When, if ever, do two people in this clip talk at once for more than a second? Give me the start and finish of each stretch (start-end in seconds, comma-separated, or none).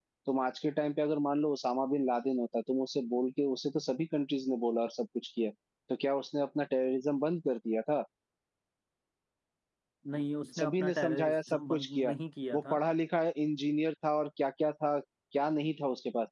10.6-12.1